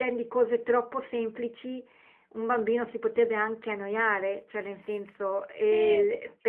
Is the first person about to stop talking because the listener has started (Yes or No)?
No